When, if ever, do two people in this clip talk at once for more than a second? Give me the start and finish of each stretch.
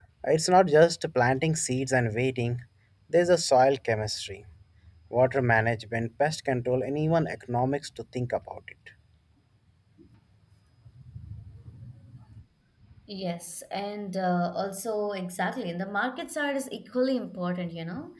none

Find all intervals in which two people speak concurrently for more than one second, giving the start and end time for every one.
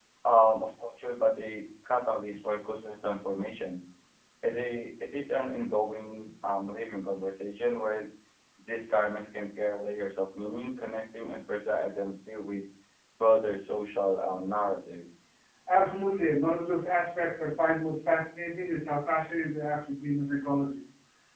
none

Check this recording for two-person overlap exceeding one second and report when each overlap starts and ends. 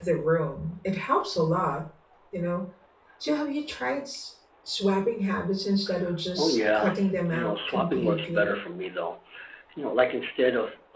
6.4-8.6

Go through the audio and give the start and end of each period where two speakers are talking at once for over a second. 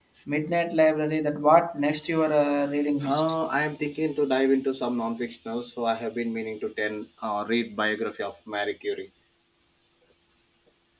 none

